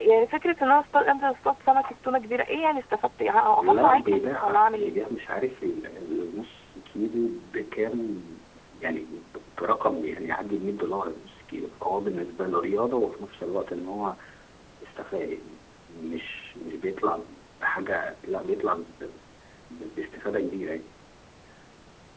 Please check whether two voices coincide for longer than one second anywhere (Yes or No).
Yes